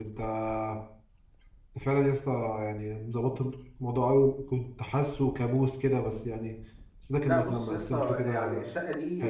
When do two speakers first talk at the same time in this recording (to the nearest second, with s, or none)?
7 s